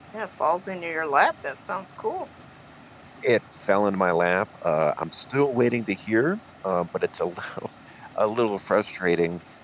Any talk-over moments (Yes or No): No